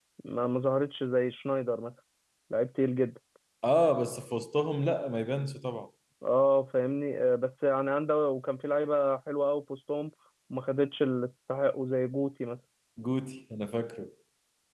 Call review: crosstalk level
none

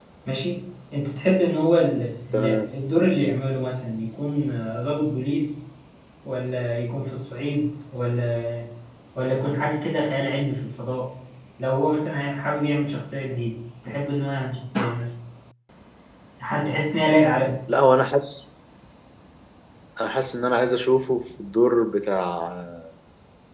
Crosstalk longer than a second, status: none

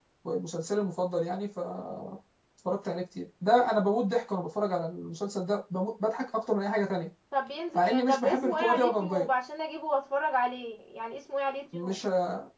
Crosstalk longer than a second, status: present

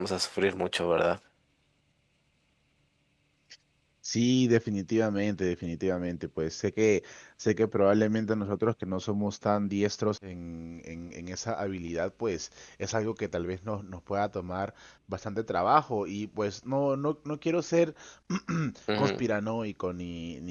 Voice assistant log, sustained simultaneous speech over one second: none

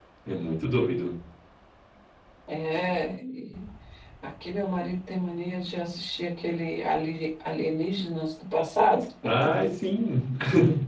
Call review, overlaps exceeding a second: none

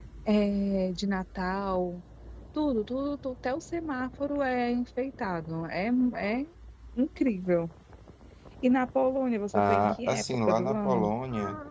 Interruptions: present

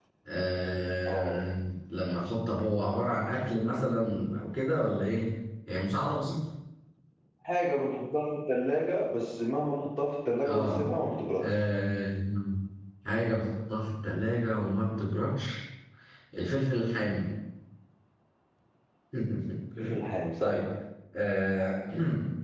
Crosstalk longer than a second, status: none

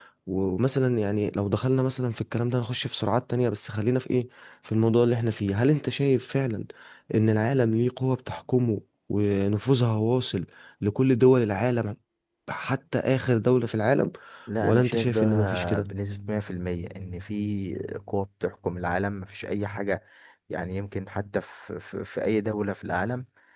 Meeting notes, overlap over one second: present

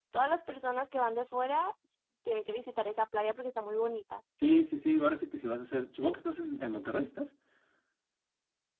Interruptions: none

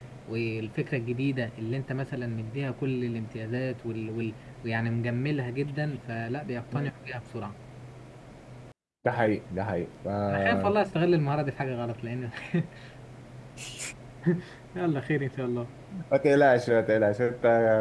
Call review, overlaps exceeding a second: none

